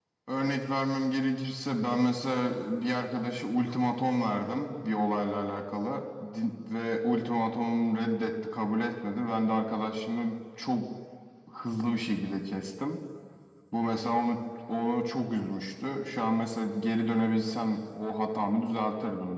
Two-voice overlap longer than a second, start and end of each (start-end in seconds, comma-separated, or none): none